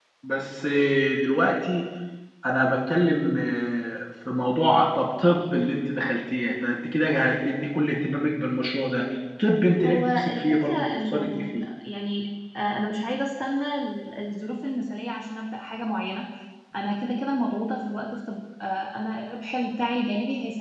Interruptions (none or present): present